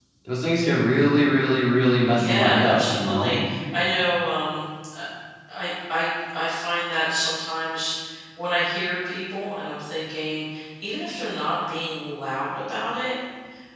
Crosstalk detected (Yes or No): Yes